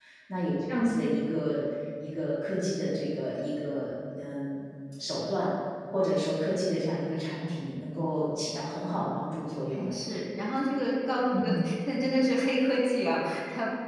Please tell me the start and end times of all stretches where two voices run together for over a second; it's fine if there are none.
none

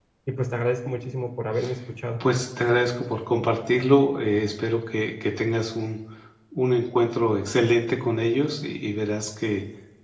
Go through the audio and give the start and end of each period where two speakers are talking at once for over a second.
none

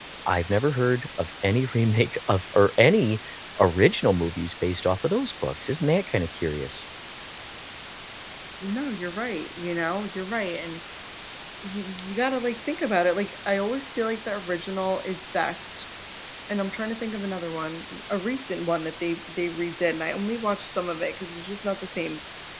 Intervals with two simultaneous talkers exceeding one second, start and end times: none

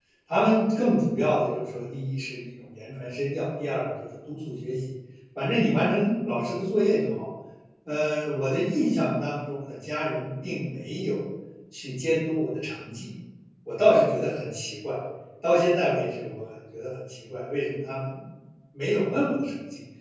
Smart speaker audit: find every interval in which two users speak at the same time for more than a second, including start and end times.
none

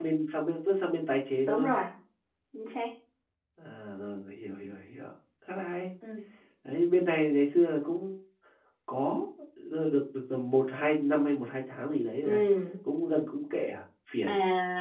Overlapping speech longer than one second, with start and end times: none

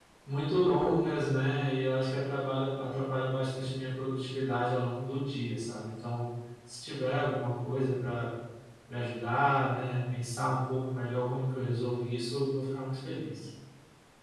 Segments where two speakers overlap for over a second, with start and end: none

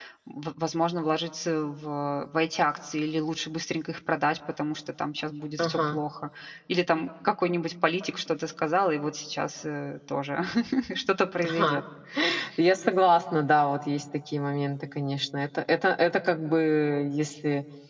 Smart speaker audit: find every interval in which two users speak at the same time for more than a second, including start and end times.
none

